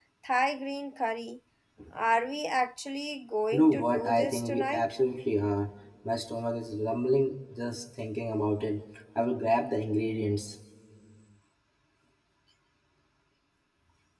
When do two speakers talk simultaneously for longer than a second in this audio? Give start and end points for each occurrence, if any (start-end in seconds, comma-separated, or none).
3.5-4.8